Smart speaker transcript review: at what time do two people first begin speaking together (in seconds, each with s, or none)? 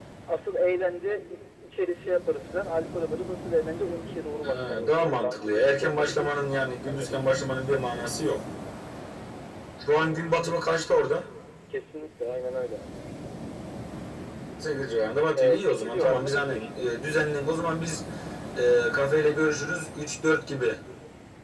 4.4 s